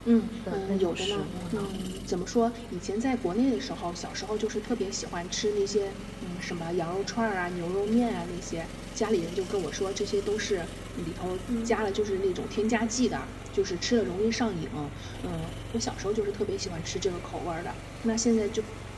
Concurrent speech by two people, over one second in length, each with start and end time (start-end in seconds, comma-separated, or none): 0.5-1.7